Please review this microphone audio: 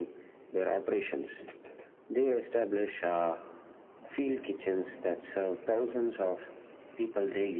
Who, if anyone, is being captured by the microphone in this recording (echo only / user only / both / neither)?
echo only